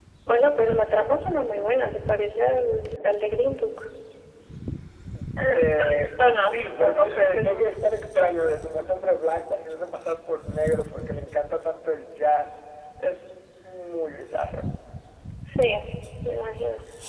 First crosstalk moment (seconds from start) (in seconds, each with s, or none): 5.5 s